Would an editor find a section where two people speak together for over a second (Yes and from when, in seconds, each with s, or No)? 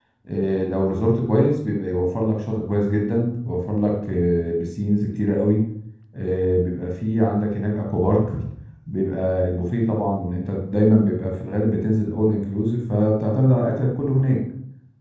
No